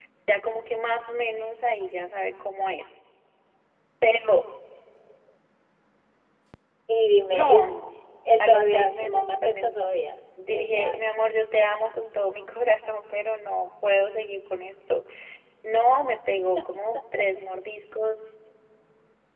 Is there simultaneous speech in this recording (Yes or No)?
Yes